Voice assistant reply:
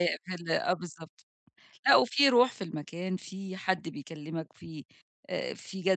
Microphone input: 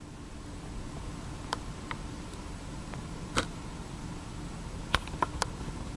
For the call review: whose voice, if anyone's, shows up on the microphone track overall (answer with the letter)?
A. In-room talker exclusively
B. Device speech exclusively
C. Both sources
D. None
D